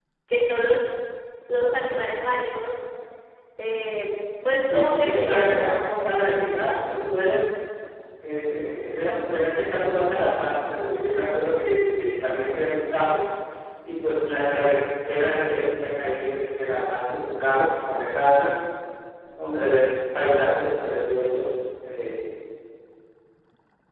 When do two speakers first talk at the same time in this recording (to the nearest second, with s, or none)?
5 s